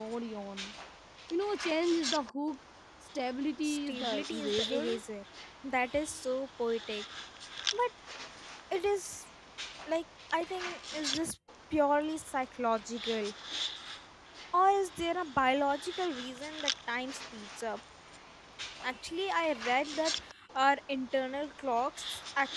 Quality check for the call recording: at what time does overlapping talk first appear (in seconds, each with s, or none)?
3.6 s